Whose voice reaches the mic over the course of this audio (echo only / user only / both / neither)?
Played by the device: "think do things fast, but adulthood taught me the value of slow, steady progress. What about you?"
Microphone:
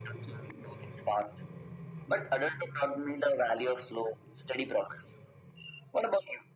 echo only